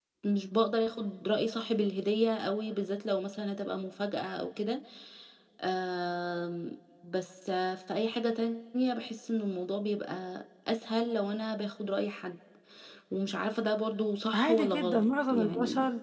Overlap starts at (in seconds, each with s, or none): 14.3 s